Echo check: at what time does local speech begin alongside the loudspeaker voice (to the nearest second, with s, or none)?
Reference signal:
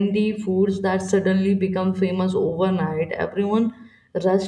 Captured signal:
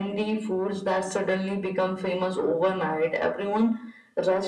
none